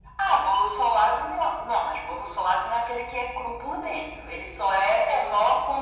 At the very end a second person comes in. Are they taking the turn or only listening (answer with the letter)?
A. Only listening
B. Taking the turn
A